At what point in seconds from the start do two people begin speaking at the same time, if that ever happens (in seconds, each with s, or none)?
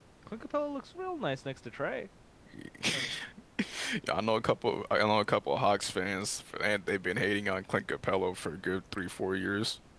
none